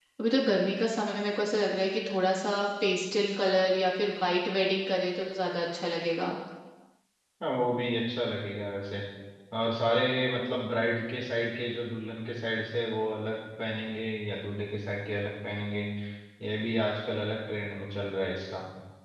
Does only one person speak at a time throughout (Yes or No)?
Yes